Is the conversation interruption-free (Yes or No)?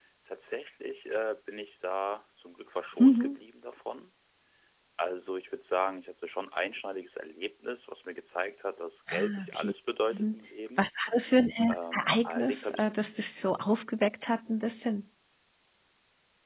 No